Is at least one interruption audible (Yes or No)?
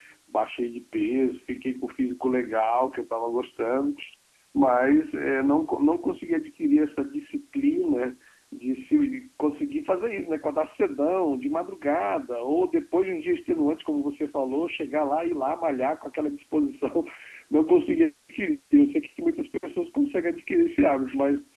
No